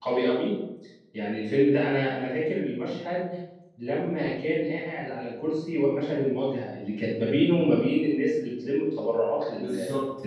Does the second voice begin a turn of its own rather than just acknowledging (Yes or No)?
Yes